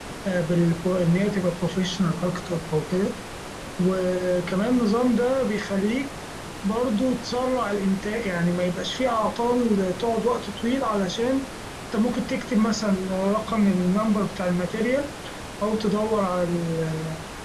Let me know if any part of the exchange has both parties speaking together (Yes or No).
No